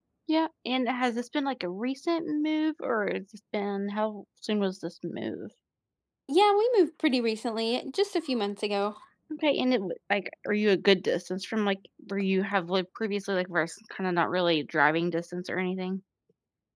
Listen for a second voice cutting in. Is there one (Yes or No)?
No